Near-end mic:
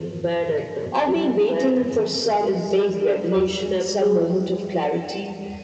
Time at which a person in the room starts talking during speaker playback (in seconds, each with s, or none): none